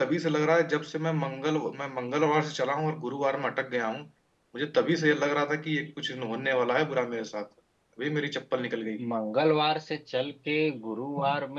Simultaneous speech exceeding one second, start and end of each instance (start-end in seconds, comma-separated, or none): none